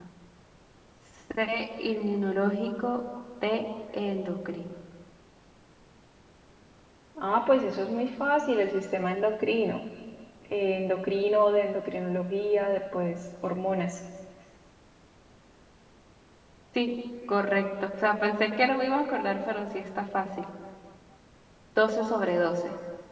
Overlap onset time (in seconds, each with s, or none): none